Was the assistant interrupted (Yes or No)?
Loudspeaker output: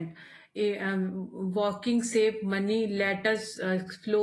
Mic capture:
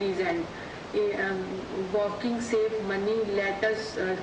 No